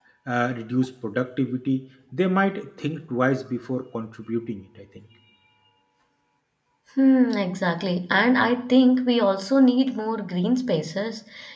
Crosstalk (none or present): none